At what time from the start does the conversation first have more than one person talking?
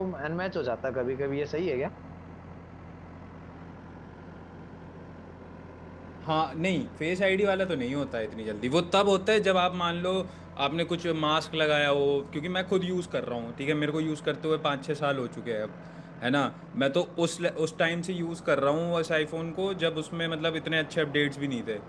none

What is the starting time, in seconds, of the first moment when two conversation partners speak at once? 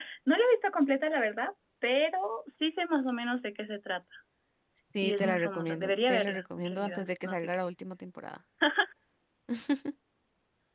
5 s

